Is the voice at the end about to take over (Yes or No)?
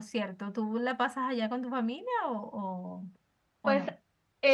Yes